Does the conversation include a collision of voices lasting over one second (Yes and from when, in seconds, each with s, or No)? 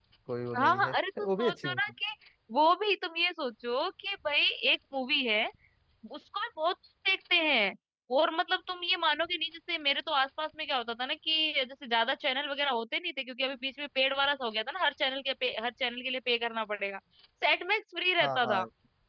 Yes, from 0.6 s